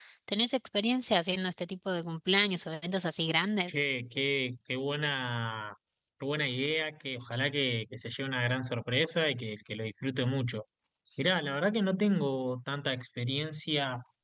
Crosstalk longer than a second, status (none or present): none